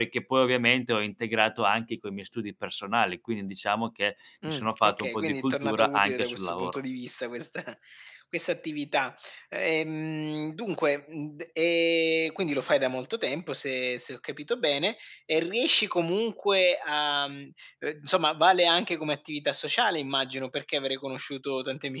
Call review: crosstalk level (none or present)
present